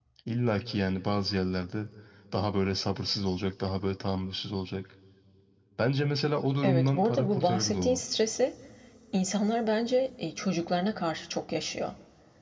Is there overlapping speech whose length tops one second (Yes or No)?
Yes